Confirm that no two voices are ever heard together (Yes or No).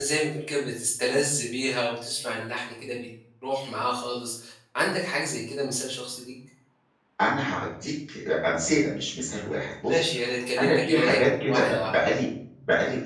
No